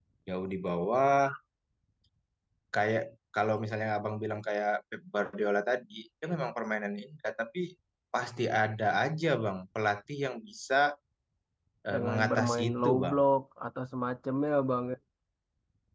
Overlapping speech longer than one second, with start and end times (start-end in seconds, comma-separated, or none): 11.9-13.2